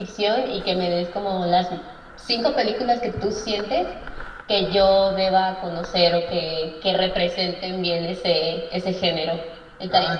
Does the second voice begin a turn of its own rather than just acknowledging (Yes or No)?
Yes